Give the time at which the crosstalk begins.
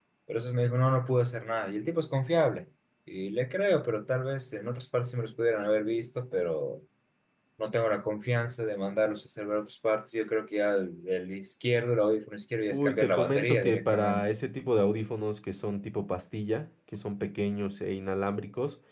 13 s

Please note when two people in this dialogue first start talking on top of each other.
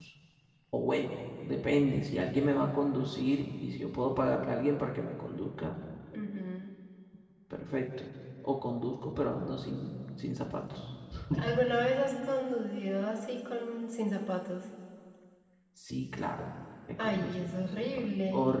17 s

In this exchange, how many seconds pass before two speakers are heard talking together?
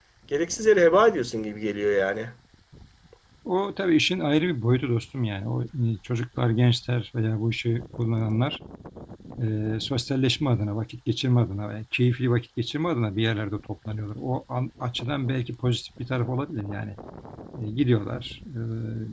none

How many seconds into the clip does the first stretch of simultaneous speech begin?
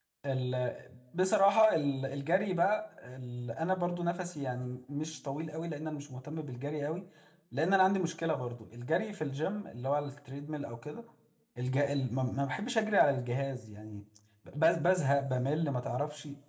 none

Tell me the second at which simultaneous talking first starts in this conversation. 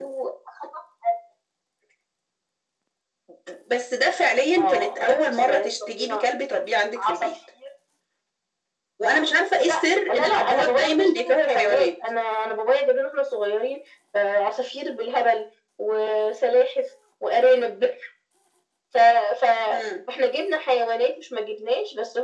5 s

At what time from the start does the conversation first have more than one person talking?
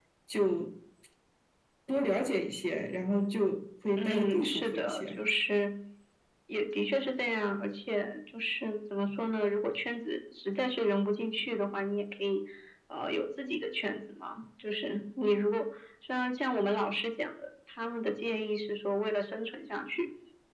4 s

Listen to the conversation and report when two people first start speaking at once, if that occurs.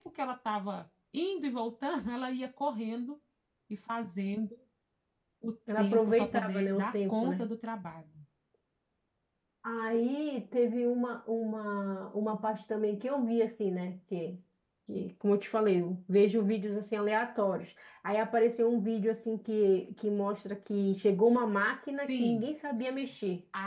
6 s

